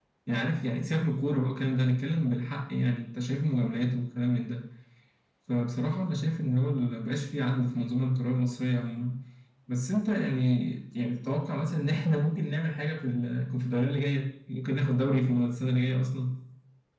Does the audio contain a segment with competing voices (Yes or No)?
No